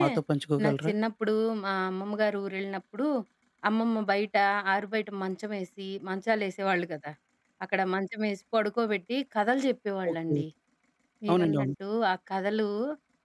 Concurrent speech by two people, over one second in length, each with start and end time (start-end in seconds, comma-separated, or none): none